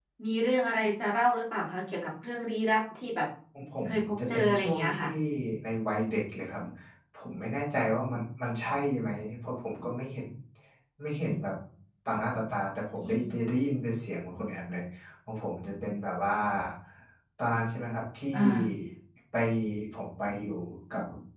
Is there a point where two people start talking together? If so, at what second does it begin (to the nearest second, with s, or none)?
4 s